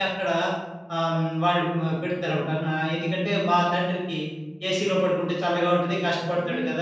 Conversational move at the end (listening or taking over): taking over